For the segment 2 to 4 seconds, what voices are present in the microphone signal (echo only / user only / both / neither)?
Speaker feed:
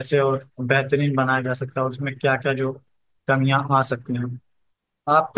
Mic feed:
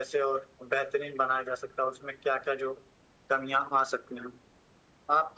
echo only